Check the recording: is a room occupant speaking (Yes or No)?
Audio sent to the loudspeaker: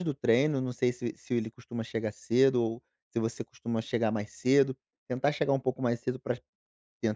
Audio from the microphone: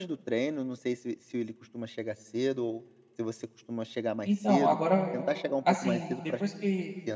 Yes